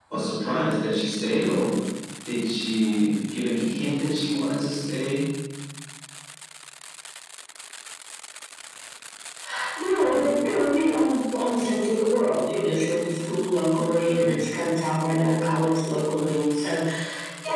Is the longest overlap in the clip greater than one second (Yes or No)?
No